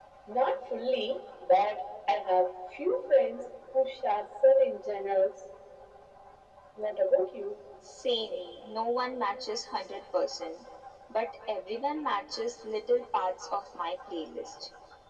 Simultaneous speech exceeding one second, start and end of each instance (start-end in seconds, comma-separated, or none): none